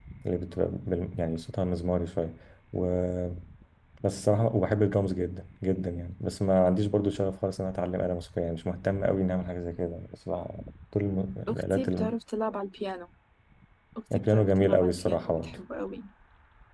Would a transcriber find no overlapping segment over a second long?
No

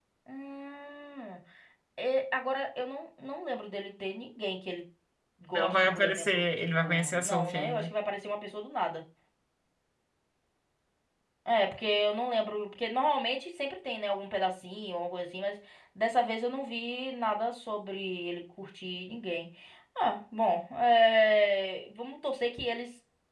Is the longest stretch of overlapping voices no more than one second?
No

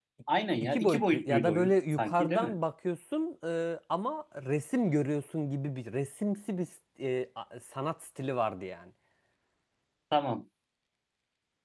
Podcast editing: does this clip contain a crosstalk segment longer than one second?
Yes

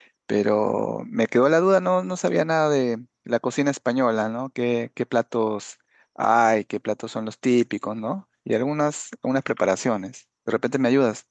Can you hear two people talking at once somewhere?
No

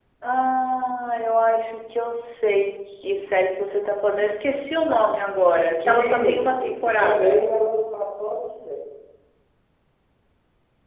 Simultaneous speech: Yes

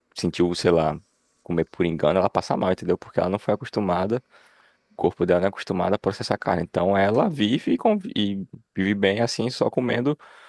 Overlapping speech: No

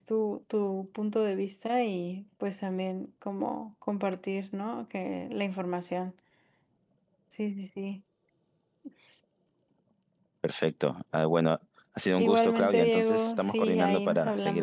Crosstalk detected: Yes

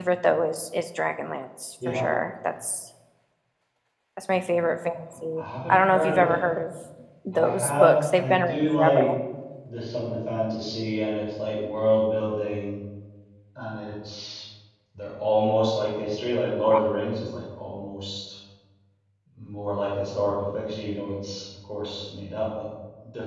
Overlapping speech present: Yes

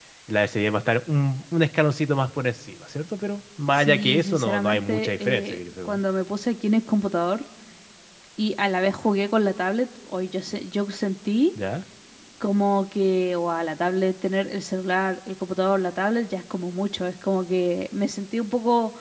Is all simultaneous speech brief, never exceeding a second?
No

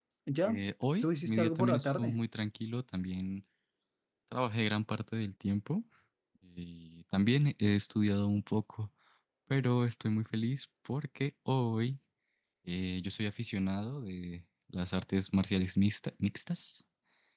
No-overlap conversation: No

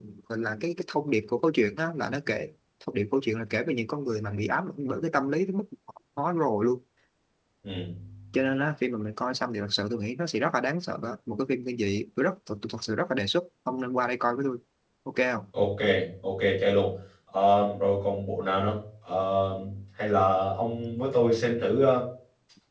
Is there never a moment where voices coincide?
Yes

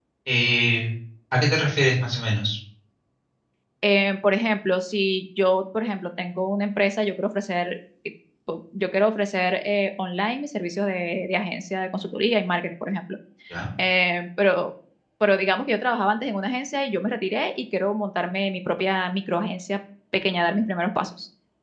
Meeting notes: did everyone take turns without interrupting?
Yes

